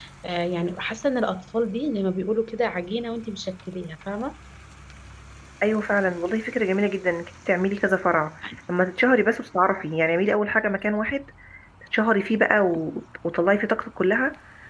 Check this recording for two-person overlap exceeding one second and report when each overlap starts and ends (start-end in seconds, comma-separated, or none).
none